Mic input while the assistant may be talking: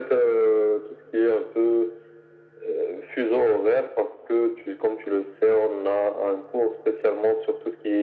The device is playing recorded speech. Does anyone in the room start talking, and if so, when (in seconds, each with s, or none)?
none